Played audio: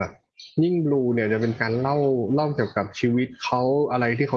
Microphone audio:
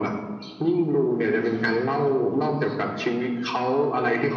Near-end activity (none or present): none